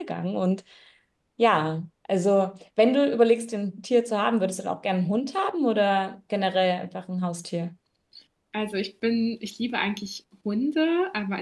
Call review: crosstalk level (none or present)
none